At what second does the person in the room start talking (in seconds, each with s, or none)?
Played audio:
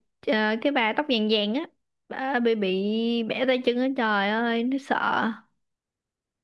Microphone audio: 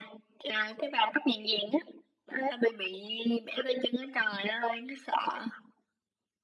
none